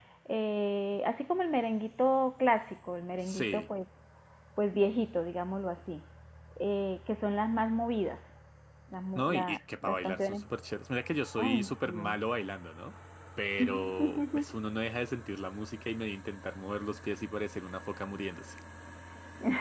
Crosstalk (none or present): present